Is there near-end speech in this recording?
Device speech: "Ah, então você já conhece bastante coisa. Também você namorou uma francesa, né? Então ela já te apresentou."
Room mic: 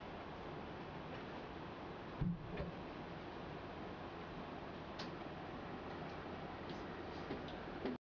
No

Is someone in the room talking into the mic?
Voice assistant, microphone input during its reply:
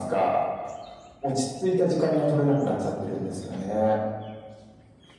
No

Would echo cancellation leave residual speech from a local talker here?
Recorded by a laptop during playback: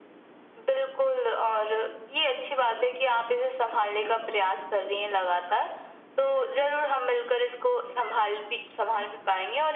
No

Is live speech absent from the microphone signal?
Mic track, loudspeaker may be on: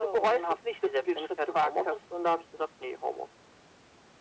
Yes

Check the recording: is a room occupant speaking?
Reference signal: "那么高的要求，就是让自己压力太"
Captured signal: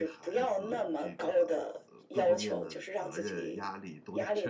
Yes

